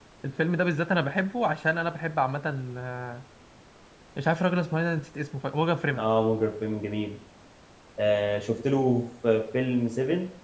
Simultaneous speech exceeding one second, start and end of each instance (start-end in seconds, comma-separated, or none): none